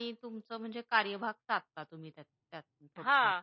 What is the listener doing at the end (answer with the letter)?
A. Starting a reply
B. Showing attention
A